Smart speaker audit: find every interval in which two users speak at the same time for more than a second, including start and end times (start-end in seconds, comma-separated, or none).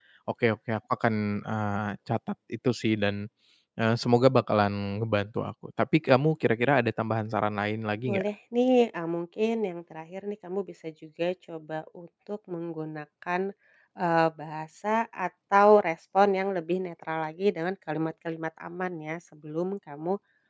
none